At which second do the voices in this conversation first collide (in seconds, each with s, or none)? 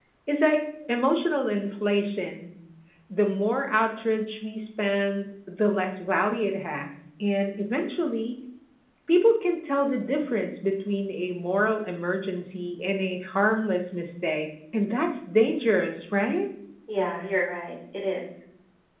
none